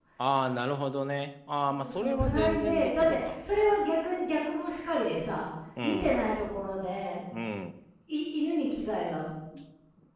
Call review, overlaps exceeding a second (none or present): present